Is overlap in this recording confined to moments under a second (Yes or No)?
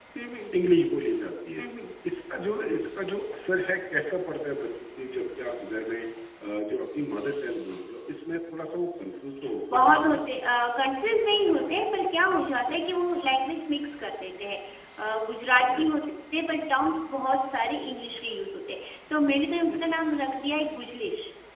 Yes